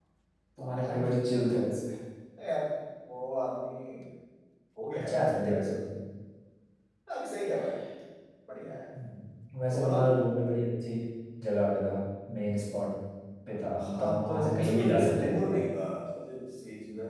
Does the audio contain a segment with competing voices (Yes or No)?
Yes